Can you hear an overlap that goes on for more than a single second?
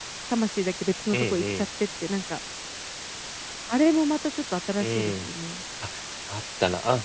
No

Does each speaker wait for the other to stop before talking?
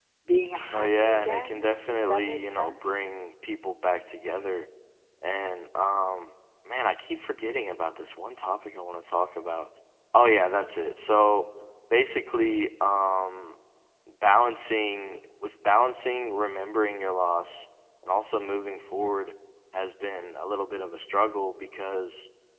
No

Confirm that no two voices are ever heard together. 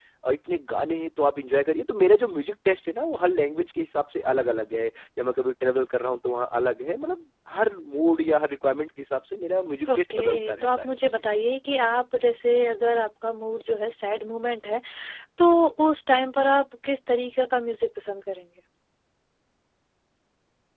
No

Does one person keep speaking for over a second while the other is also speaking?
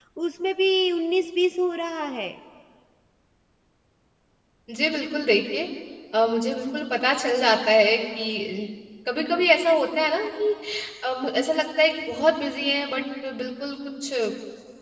No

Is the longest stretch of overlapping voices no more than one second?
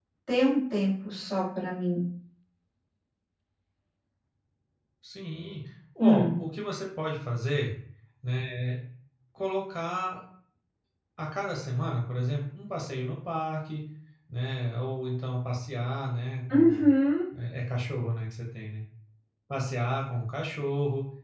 Yes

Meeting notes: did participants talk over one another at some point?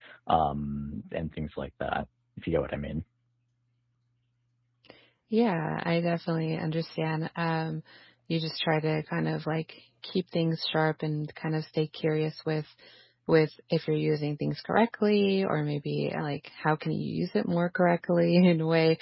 No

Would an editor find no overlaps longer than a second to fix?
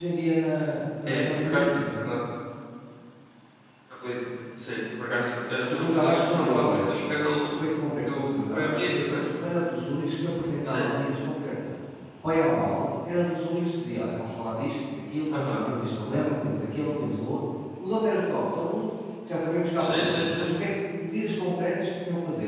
No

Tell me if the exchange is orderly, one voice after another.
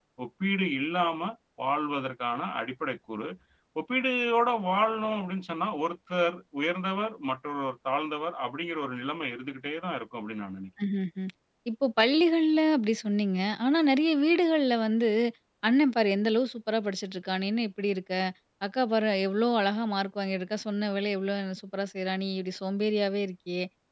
Yes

